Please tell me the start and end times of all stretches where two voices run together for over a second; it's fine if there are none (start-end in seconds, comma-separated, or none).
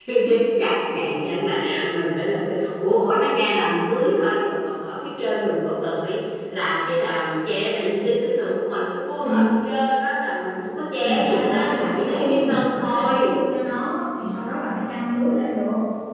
11.0-13.4